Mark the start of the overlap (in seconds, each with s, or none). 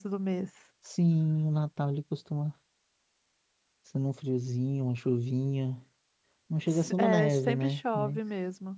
6.7 s